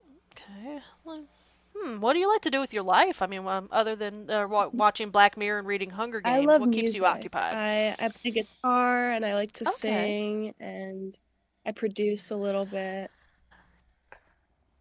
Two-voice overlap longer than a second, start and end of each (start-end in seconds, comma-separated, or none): 6.2-7.5